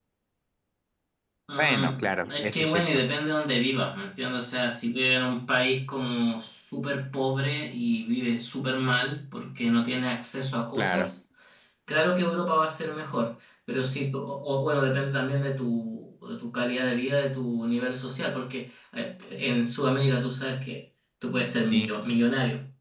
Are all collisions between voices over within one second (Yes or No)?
No